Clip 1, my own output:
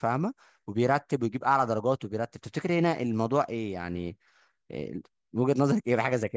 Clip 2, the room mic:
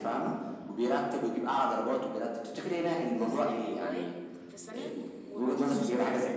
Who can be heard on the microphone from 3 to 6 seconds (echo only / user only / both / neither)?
both